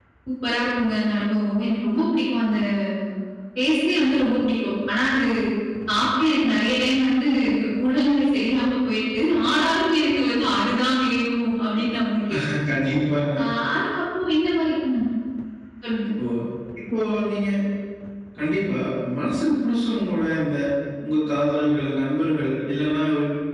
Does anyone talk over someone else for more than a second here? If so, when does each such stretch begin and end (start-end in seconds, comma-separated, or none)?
none